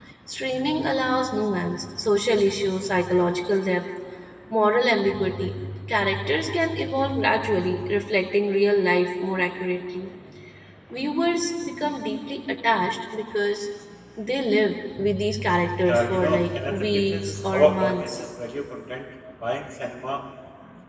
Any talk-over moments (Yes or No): Yes